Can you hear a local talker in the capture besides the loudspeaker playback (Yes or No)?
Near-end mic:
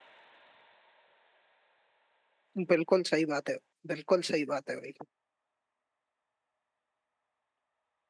Yes